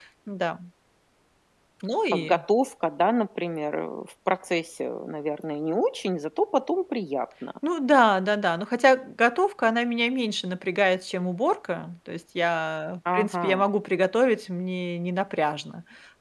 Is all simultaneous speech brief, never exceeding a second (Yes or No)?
Yes